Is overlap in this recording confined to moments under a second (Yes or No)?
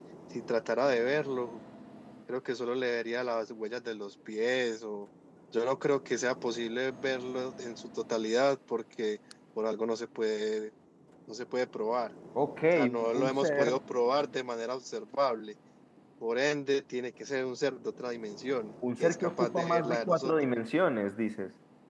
No